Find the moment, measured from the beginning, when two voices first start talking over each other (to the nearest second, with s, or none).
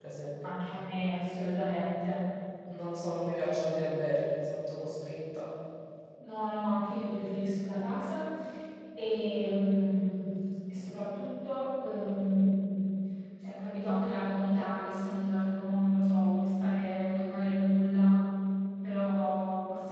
none